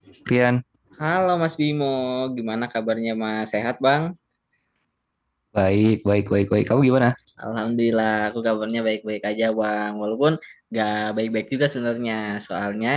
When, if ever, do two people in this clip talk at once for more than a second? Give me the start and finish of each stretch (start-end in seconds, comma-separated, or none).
none